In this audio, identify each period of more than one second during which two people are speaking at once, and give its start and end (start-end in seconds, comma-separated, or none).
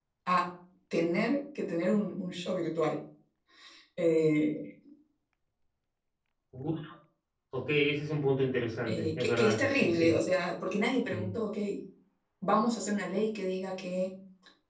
8.9-10.2